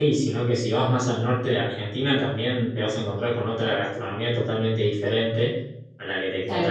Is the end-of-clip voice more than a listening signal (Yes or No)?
No